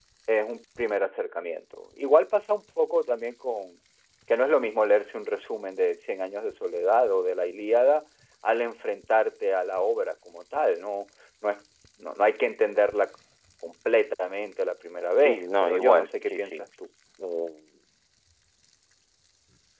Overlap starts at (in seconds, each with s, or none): 15.2 s